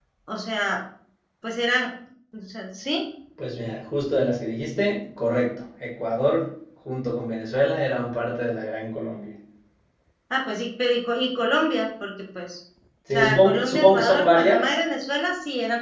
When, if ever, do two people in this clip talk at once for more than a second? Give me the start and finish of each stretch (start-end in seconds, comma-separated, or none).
13.1-14.7